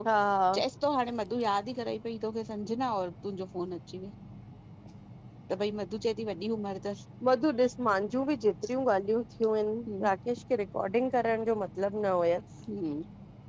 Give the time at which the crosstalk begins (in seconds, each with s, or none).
none